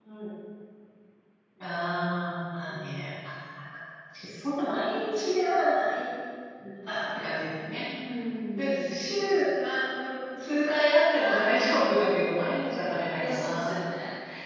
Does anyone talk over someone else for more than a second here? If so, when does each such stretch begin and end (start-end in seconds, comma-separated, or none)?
none